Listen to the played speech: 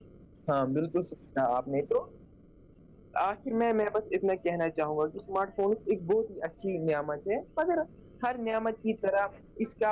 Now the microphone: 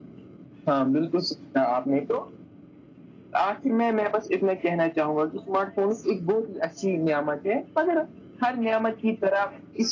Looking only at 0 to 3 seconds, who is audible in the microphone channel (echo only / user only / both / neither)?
echo only